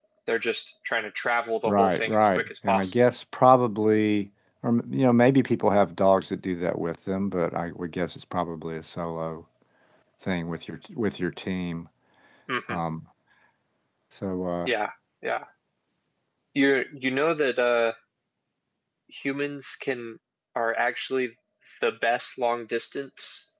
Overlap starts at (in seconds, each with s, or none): 1.6 s